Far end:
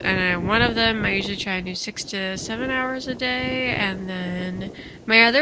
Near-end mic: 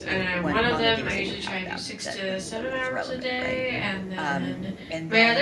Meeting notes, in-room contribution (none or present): present